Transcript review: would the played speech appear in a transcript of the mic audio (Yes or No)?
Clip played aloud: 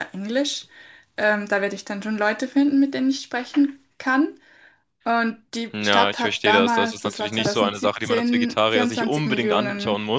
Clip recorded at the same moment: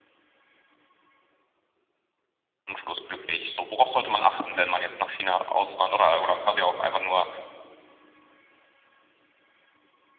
No